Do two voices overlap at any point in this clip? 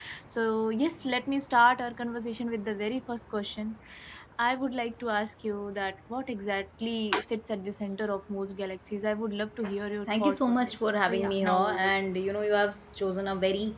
Yes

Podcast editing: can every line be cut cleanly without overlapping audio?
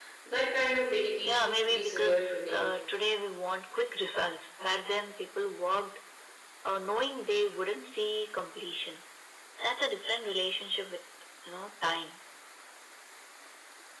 No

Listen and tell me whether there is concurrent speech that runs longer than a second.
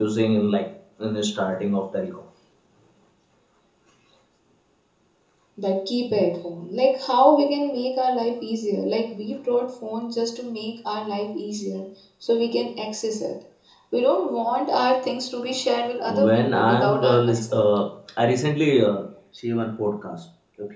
Yes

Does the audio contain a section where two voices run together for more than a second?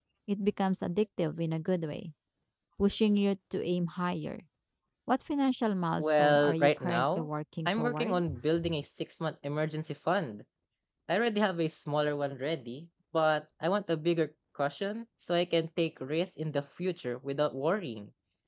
Yes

